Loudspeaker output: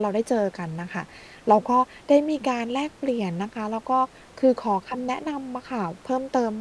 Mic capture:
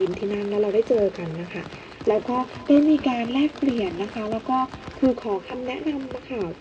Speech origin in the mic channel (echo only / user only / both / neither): echo only